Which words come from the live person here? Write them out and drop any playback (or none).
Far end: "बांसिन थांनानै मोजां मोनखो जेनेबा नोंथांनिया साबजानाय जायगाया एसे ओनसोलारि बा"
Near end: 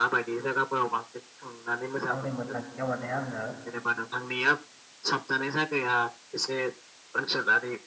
आंनि मोनोदांथियाव माने आङो।